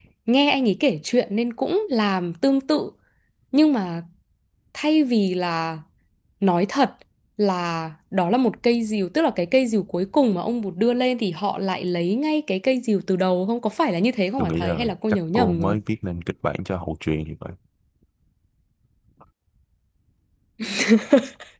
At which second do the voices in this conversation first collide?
14 s

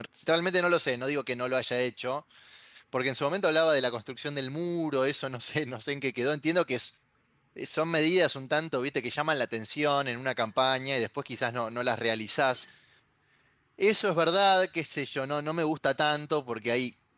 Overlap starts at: none

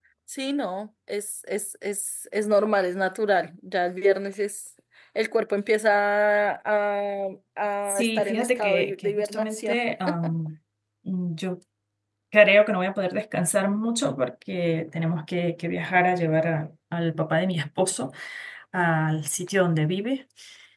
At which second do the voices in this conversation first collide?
8 s

